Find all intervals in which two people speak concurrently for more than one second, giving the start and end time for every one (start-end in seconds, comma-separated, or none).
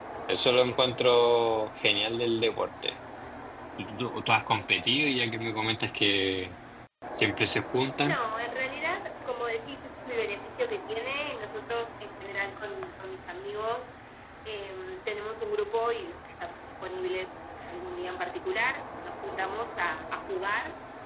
none